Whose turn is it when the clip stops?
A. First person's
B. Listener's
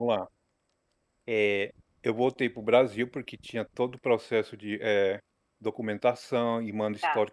A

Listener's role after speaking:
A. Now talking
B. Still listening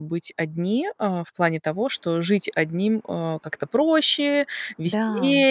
B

